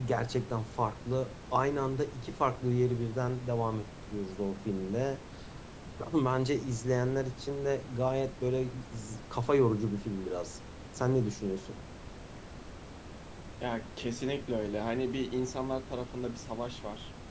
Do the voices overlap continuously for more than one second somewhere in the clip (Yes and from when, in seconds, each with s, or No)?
No